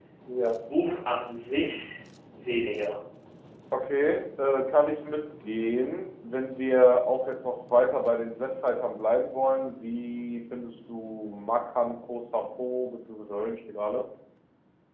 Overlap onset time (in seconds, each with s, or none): none